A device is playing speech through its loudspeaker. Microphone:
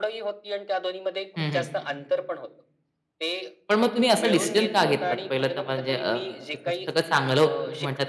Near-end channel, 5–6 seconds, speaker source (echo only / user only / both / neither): both